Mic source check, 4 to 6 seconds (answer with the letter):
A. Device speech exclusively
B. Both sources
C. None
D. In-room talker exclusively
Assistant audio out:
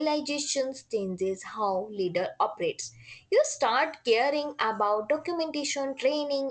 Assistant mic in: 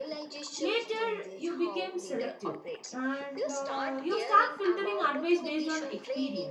B